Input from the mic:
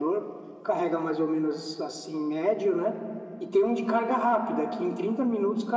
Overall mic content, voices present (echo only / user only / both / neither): echo only